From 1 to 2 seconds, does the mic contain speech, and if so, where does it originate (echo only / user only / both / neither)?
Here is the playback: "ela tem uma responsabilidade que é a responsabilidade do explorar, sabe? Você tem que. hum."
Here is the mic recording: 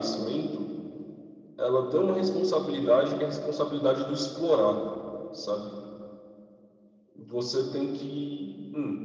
echo only